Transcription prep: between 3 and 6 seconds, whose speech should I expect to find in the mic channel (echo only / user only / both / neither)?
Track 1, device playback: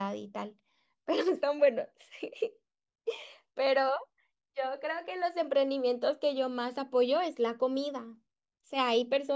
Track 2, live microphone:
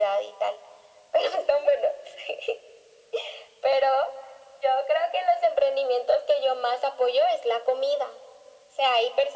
echo only